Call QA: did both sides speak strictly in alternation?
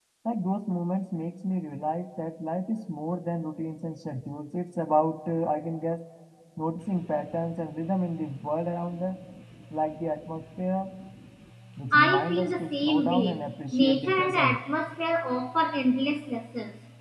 No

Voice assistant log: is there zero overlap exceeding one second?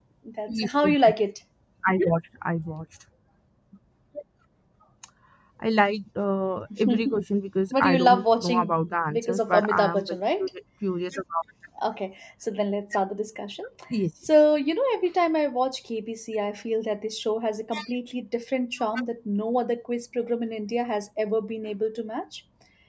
No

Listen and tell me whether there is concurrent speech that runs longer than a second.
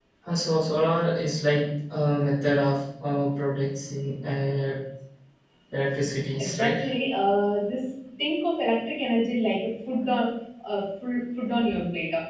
No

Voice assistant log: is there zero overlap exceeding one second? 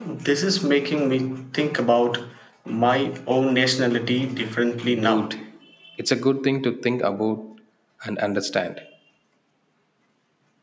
Yes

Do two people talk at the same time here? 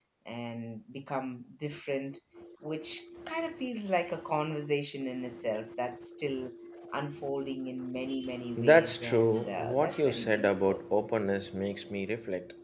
Yes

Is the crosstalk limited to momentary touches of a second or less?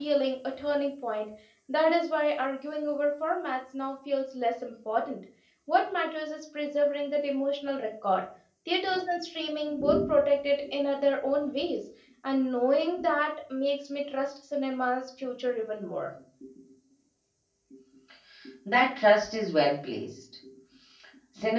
Yes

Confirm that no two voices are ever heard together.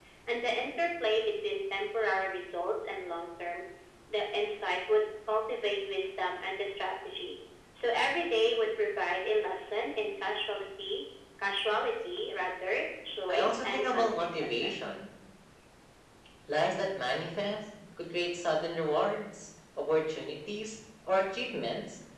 No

